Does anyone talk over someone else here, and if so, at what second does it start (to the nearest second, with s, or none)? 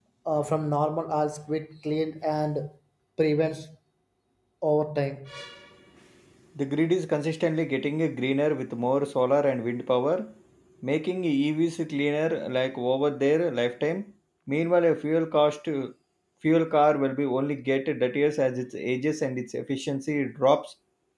none